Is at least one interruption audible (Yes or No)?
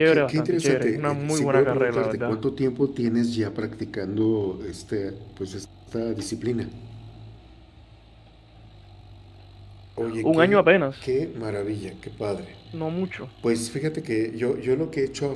Yes